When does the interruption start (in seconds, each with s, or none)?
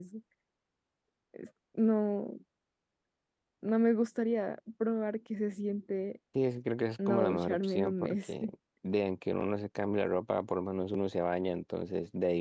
7.1 s